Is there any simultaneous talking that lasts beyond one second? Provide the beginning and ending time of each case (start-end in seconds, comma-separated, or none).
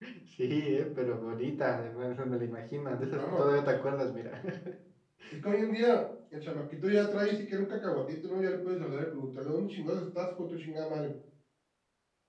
none